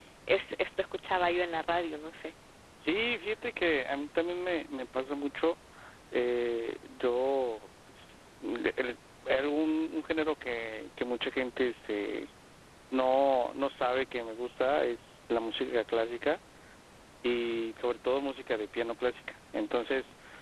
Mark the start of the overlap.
none

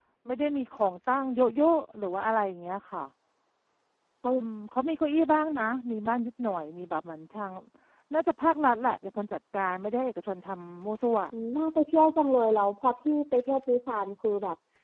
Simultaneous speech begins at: none

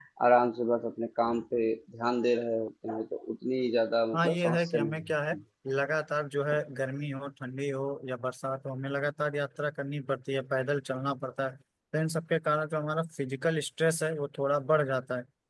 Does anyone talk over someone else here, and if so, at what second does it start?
4.1 s

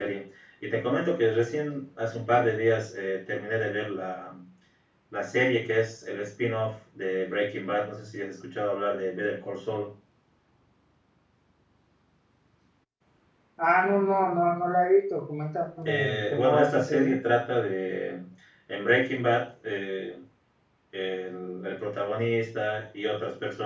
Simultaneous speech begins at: 15.8 s

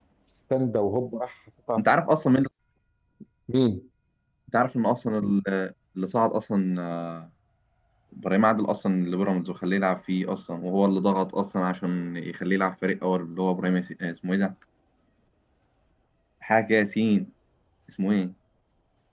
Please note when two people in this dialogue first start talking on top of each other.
none

